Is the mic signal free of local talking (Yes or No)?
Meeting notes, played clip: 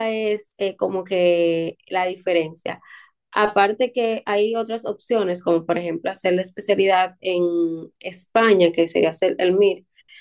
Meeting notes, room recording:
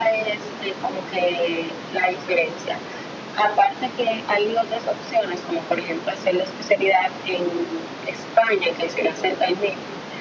Yes